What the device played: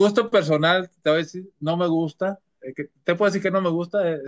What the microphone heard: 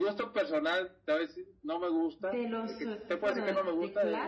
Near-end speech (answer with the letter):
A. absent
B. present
B